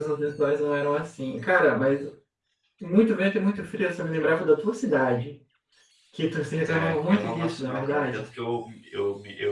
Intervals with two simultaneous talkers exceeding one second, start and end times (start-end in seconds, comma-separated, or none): 6.7-8.3